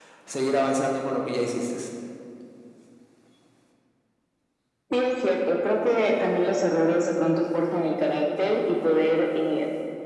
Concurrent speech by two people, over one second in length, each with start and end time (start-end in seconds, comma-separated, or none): none